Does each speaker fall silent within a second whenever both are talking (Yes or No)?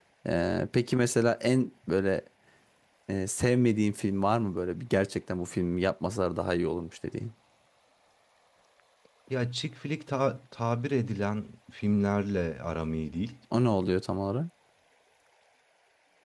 Yes